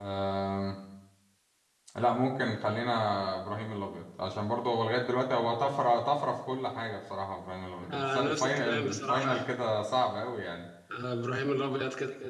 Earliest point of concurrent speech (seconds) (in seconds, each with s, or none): 7.8 s